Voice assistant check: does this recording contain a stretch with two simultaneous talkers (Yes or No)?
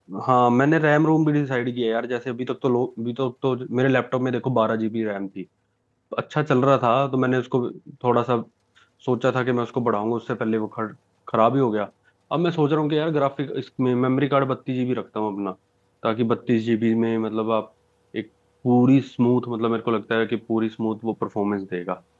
No